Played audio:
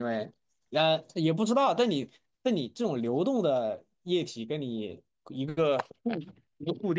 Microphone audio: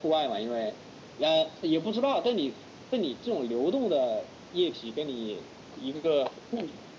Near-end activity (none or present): none